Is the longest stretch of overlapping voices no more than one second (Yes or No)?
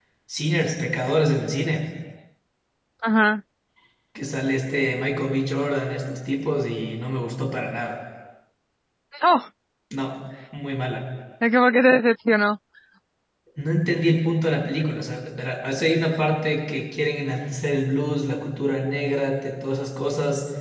Yes